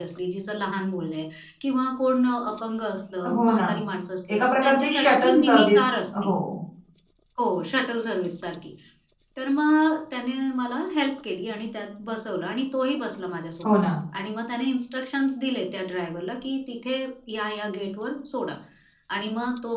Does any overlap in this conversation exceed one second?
Yes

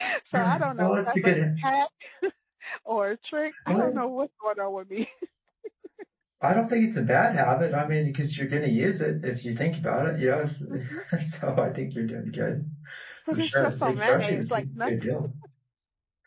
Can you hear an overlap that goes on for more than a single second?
Yes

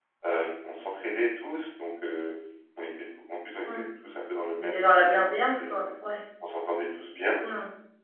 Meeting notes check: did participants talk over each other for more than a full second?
Yes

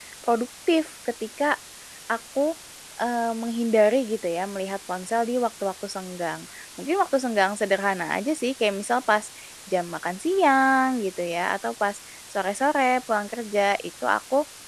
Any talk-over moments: No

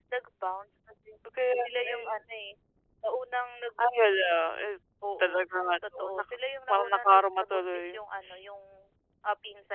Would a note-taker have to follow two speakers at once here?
Yes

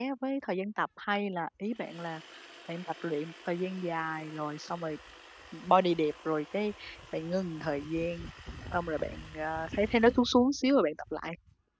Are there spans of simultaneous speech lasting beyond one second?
No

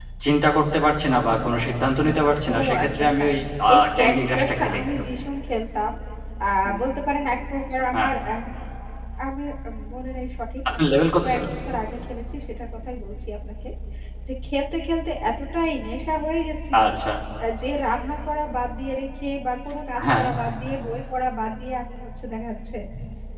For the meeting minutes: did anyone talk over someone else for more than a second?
Yes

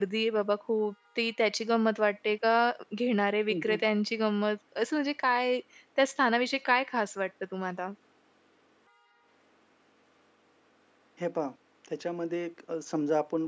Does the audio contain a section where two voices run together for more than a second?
No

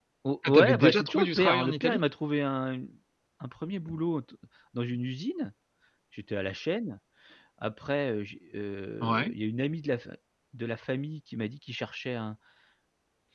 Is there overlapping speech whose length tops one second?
Yes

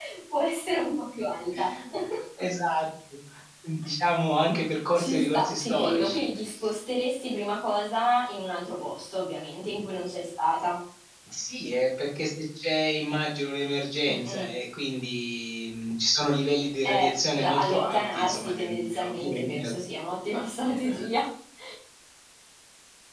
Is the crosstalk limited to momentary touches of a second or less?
No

